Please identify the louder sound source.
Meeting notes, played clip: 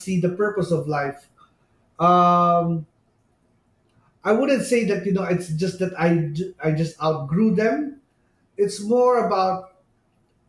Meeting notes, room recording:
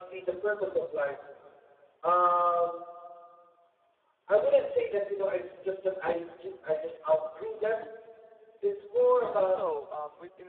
echo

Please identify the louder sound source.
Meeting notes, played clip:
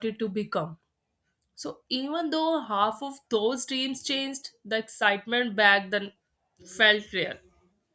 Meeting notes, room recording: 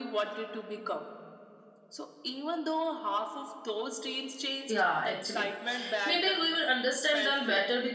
user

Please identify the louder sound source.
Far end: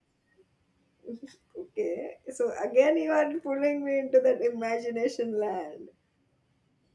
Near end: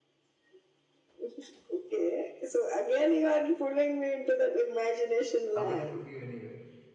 echo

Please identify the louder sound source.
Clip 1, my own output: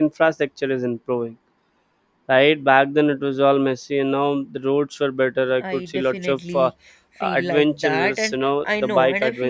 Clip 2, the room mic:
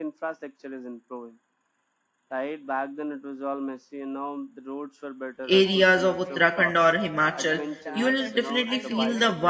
user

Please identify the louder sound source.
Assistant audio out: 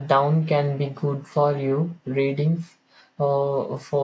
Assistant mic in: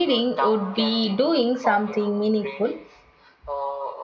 user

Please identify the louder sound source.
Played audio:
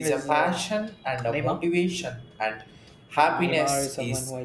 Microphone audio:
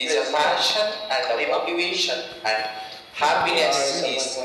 echo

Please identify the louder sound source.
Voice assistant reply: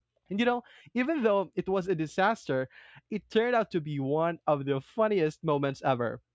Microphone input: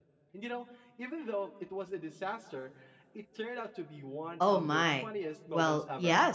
user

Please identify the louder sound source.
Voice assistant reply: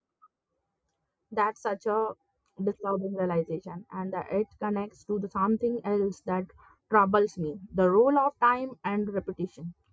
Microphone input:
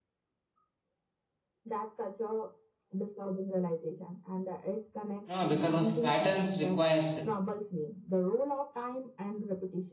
user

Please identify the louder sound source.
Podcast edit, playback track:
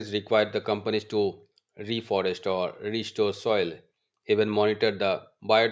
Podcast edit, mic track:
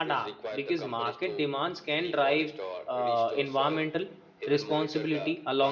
user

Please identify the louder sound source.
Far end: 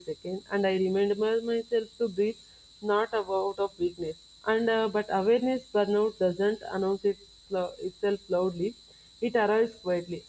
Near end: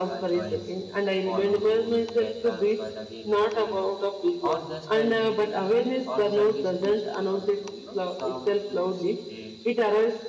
echo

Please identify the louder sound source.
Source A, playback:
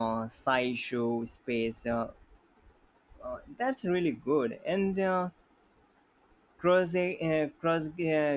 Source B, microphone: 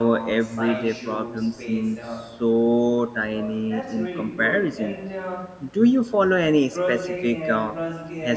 user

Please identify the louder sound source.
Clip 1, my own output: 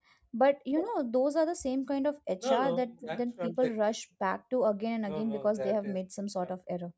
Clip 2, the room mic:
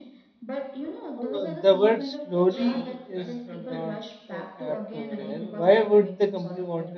user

